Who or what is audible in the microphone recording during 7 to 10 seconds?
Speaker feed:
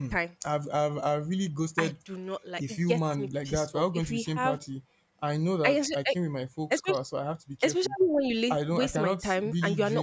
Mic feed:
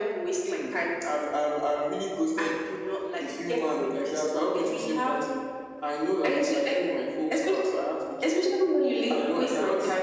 echo only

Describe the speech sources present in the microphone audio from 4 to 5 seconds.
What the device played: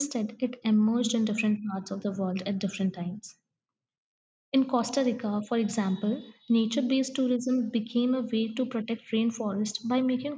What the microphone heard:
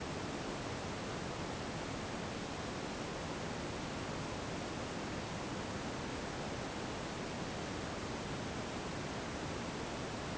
neither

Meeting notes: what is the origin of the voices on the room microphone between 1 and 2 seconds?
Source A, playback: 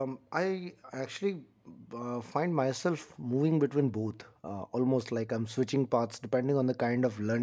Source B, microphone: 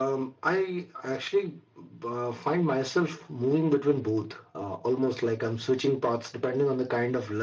echo only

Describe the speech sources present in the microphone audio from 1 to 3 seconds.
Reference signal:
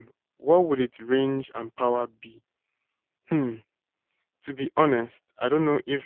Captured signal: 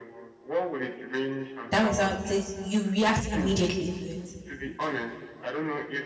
both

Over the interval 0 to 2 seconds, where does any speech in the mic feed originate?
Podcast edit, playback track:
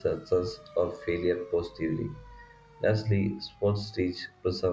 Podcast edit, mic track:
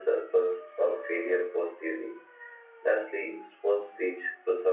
echo only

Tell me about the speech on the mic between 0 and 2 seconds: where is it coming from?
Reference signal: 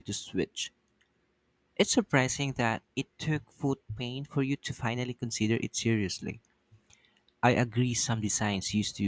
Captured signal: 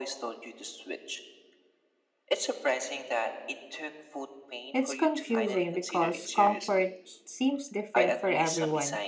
echo only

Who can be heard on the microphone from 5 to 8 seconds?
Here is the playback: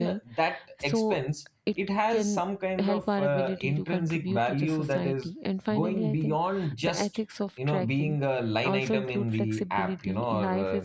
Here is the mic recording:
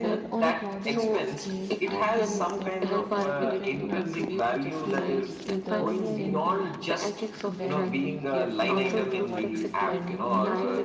both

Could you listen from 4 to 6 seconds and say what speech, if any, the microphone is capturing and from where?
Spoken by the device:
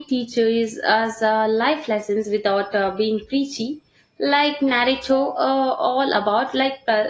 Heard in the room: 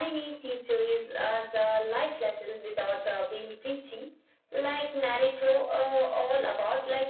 echo only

